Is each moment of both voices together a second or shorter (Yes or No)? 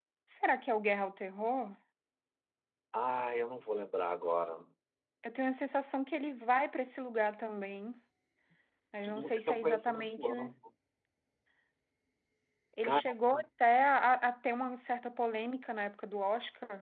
No